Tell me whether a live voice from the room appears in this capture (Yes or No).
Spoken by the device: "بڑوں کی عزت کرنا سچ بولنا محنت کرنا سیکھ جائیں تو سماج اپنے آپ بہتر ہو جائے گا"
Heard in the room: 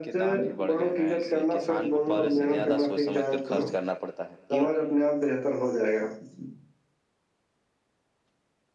Yes